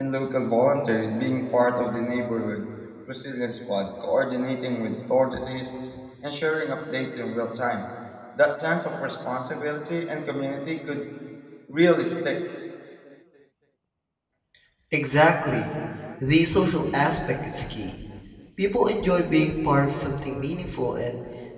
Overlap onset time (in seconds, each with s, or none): none